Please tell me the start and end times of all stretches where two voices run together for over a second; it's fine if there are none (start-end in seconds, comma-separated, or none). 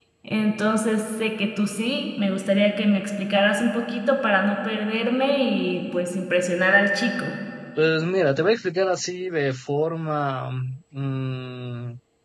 none